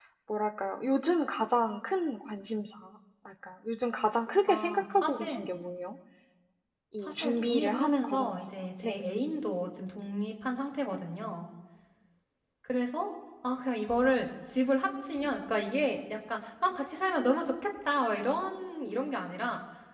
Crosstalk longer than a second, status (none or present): present